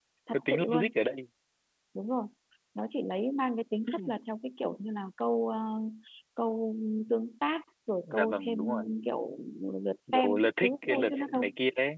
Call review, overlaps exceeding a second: present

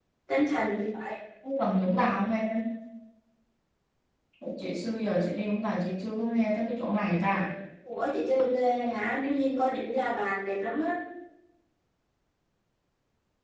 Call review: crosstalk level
none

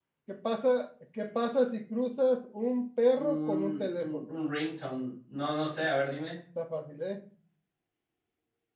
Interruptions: present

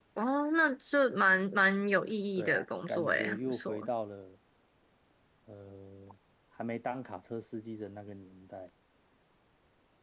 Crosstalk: present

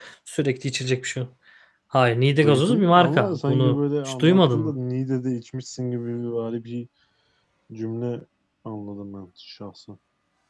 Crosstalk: present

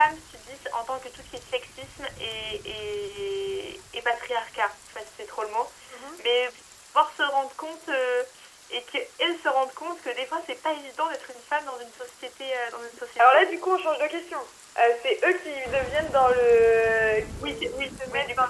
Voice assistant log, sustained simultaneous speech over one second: none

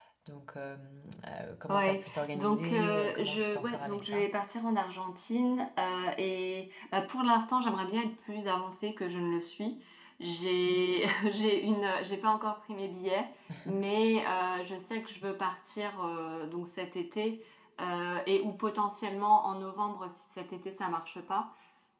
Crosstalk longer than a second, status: present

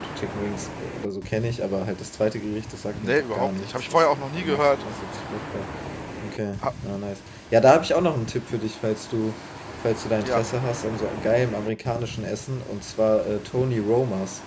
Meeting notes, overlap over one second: present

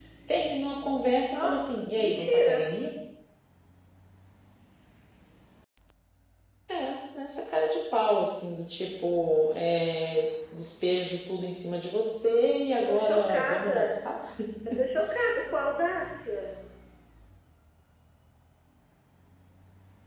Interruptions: present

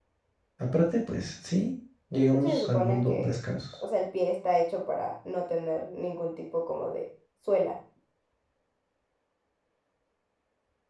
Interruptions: present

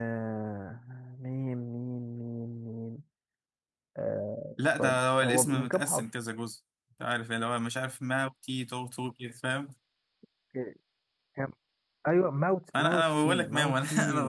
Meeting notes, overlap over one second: present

